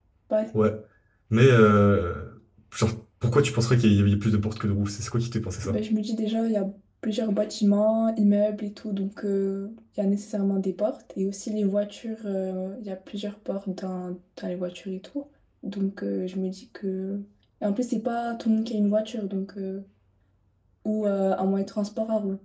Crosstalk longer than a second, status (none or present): none